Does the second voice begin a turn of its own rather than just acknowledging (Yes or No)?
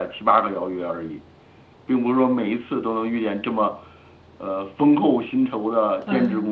Yes